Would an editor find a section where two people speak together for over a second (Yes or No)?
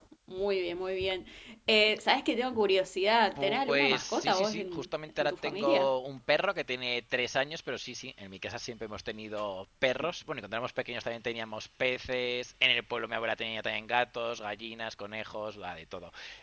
Yes